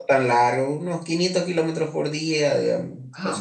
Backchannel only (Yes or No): No